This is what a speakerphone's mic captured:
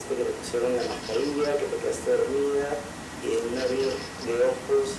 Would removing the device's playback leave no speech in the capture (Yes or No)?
Yes